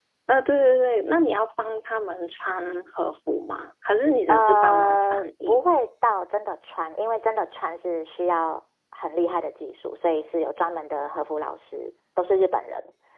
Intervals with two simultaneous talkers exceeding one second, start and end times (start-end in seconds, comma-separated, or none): 4.3-5.6